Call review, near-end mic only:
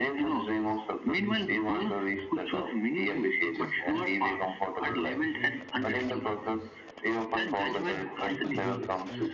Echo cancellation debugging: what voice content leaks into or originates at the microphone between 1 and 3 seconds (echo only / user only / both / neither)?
both